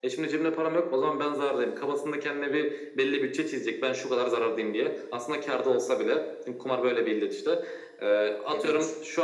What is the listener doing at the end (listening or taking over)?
listening